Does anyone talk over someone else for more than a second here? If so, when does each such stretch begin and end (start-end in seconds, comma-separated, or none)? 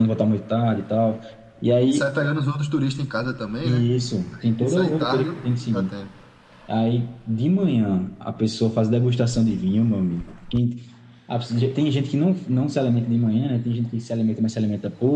4.4-5.9